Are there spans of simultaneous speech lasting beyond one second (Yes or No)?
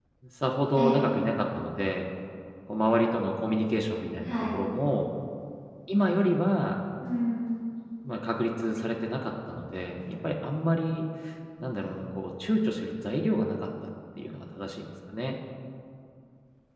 No